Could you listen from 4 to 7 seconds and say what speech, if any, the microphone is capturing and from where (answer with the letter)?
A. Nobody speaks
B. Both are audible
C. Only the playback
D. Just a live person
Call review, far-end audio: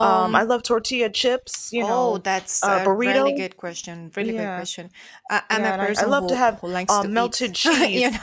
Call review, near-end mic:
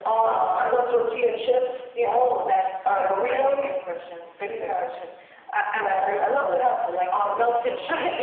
C